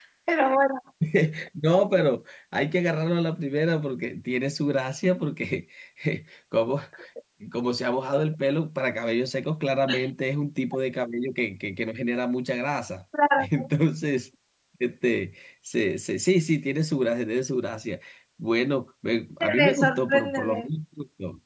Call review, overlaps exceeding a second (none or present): present